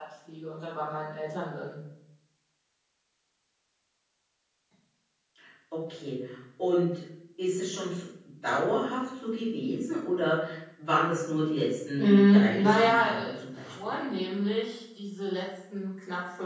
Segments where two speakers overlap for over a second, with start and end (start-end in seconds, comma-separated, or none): 12.0-13.7